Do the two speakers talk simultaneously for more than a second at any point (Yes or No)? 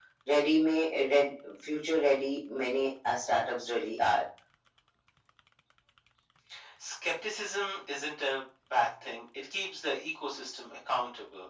No